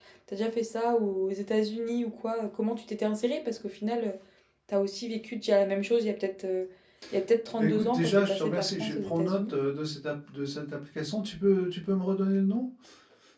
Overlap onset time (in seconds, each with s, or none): 7.6 s